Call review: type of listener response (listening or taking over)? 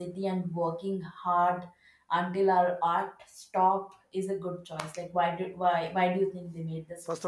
taking over